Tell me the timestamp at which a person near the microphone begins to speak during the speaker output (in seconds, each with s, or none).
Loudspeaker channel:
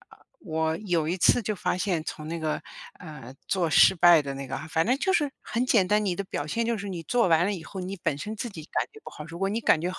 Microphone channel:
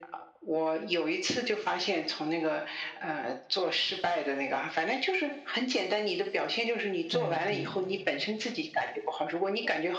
7.0 s